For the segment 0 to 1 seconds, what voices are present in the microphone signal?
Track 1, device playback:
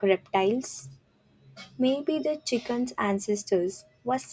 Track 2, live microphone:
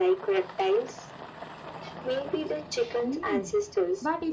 echo only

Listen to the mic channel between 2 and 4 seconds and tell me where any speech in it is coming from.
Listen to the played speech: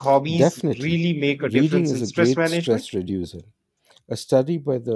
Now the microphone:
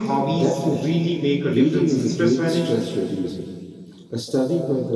echo only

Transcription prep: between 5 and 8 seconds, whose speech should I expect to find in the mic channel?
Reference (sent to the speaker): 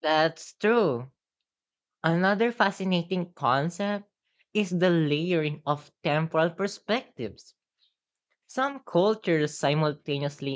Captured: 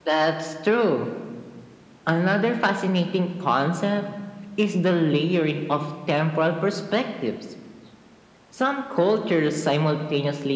echo only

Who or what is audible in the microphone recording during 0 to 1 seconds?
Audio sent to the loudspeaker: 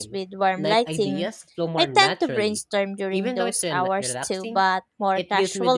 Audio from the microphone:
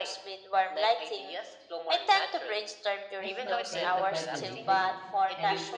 echo only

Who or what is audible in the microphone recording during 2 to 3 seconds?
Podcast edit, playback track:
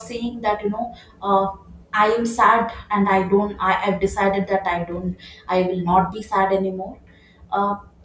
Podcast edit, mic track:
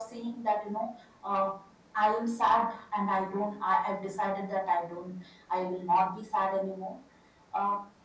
echo only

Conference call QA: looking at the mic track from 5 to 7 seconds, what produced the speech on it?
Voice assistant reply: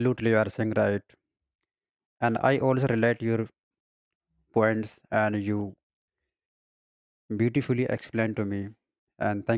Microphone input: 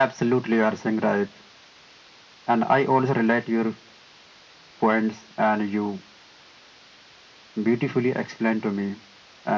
echo only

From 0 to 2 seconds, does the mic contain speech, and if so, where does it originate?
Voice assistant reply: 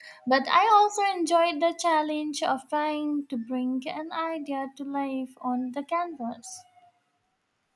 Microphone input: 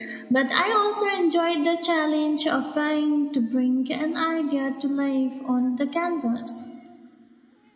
echo only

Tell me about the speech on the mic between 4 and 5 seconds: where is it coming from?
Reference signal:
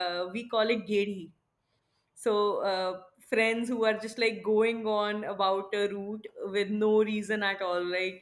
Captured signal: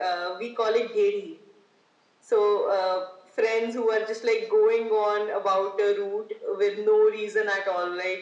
echo only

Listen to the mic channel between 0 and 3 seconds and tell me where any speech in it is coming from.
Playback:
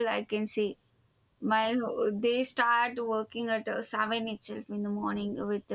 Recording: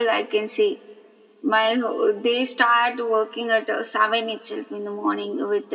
echo only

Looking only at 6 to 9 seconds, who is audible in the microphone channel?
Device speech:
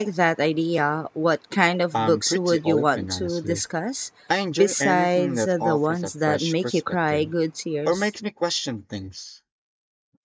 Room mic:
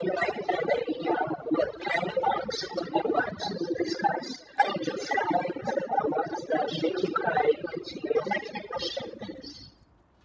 echo only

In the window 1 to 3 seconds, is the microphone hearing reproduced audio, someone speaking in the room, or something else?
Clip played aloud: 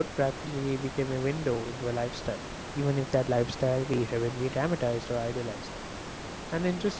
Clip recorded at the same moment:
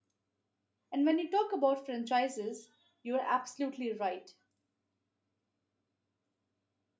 user only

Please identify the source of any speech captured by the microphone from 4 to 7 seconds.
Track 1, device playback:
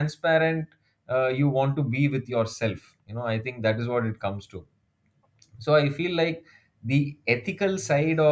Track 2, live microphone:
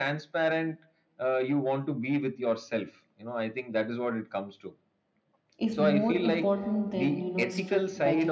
both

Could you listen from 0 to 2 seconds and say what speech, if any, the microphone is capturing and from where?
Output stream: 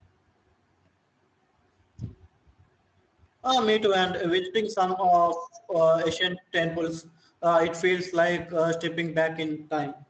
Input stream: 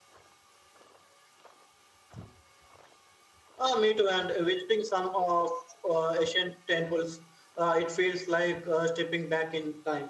neither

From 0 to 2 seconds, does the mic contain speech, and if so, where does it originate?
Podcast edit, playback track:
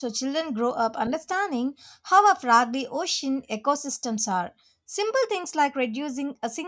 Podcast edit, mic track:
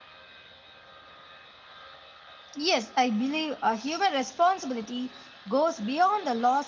neither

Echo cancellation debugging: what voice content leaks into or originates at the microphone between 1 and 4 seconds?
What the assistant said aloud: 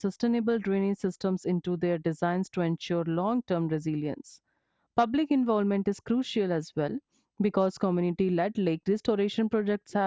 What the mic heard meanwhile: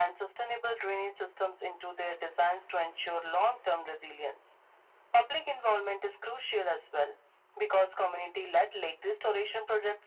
echo only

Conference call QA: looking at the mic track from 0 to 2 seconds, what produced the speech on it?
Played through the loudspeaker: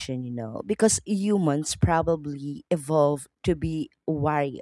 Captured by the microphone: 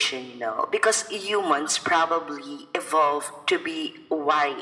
echo only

